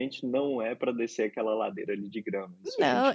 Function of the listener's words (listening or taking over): taking over